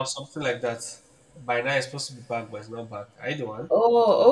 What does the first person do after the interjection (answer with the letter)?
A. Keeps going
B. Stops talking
B